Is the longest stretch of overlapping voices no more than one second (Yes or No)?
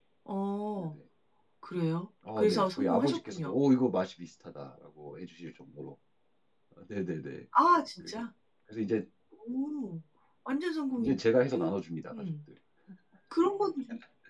No